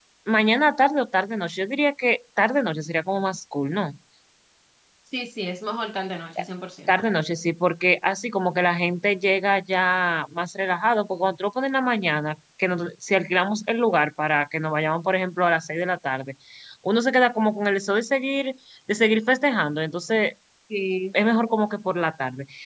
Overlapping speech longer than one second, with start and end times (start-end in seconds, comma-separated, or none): none